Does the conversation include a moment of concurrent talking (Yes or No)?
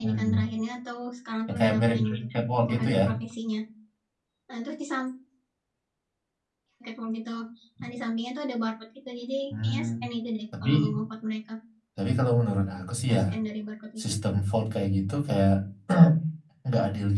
Yes